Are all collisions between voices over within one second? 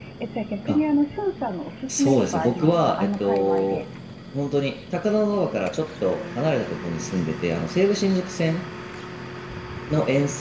No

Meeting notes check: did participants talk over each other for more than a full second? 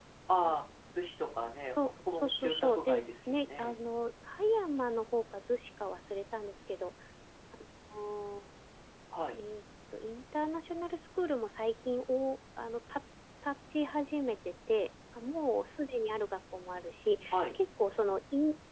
Yes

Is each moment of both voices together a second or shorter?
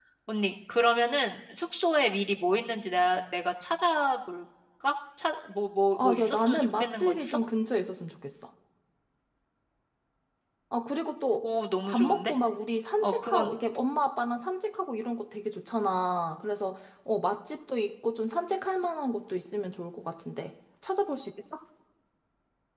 No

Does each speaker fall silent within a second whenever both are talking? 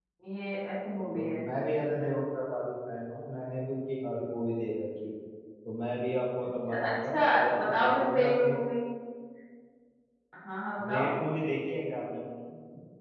No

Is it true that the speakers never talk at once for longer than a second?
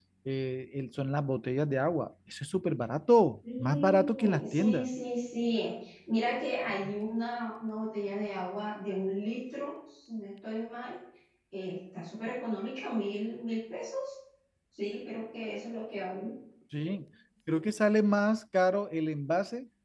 No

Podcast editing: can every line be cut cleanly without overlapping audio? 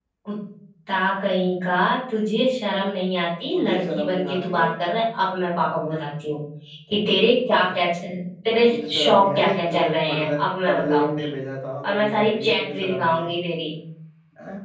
No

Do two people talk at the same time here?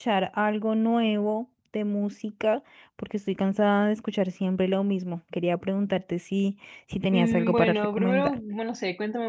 Yes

